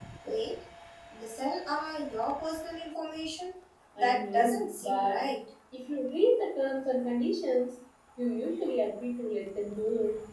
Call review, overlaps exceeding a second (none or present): present